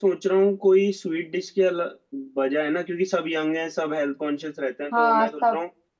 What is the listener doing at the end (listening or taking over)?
listening